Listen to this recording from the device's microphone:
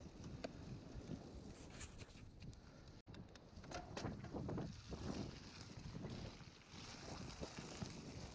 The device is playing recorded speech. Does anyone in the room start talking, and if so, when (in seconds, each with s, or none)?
none